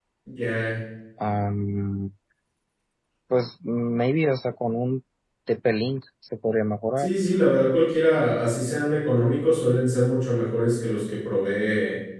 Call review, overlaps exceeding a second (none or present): none